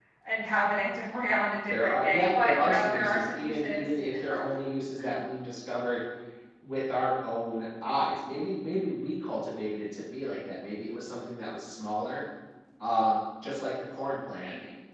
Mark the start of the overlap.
1.7 s

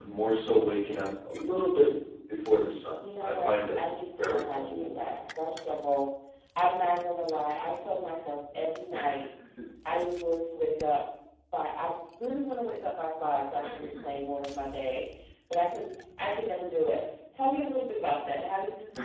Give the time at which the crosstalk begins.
3.0 s

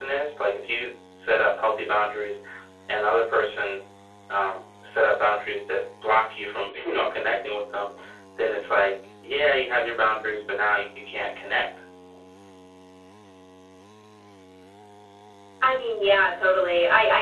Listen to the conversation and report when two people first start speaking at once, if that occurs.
none

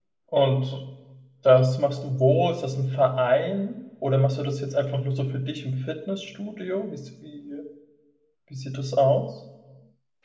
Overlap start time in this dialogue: none

